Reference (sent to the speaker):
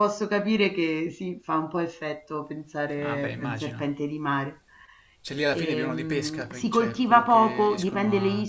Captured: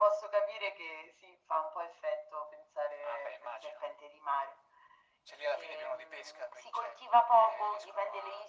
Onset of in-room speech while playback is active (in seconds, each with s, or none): none